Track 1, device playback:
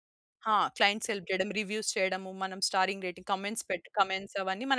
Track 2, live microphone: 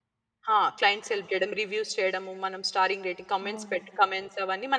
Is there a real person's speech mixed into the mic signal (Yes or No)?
Yes